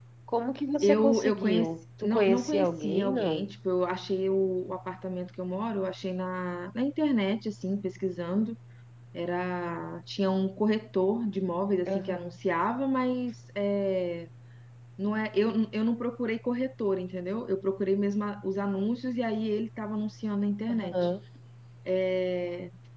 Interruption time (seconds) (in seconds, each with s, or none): 0.8 s